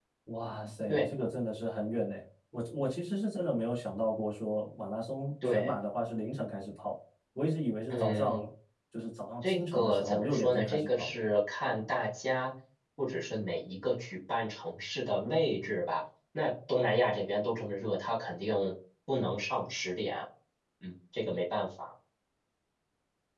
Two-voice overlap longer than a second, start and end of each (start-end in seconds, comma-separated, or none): 9.4-11.1